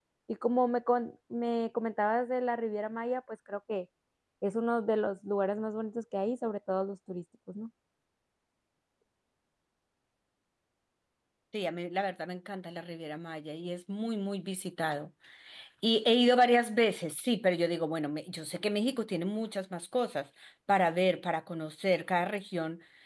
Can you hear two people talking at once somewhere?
No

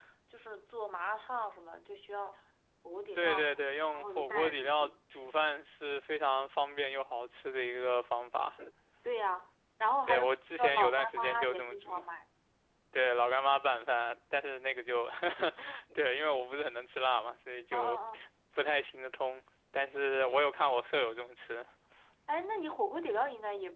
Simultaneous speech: Yes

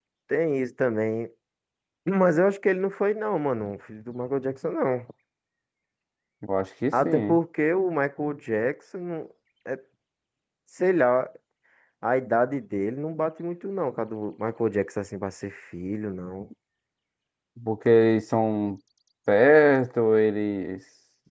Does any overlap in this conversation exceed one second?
No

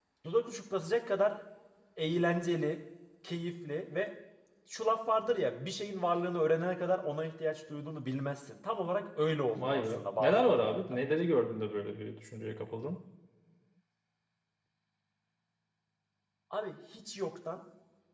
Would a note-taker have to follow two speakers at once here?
Yes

